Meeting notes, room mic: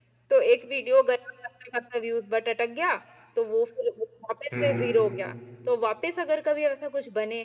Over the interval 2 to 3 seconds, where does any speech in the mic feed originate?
echo only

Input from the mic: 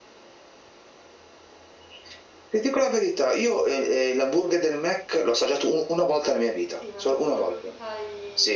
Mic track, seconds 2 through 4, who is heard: echo only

